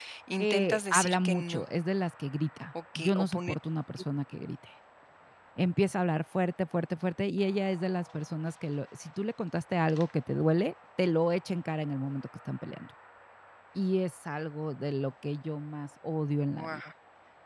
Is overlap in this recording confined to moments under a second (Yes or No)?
No